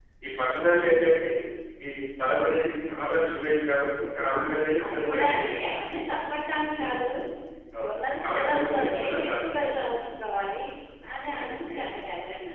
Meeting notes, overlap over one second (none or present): present